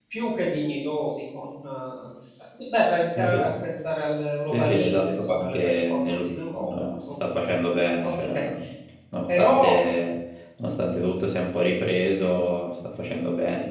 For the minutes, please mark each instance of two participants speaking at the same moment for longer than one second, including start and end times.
4.5-7.3

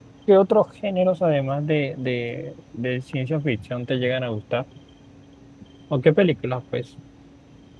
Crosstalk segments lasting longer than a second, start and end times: none

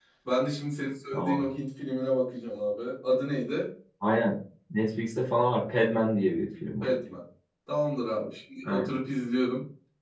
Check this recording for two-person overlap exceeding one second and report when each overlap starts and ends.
none

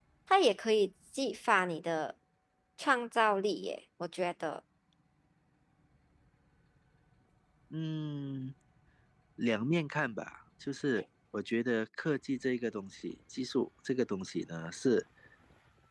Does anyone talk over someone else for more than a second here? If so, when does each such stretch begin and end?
none

